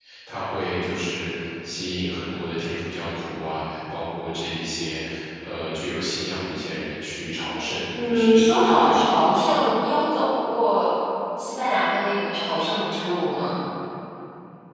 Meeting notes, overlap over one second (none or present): present